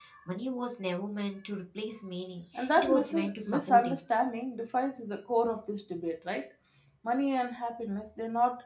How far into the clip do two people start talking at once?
2.5 s

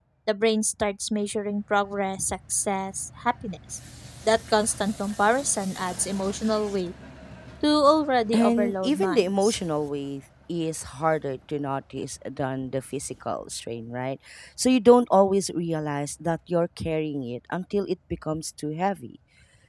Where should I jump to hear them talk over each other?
8.3 s

